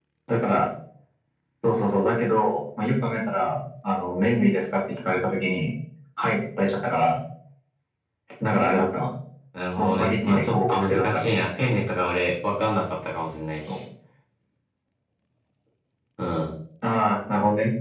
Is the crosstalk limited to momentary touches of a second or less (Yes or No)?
No